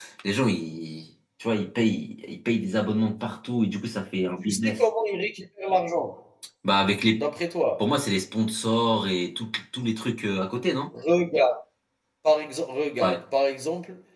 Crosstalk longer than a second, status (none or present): none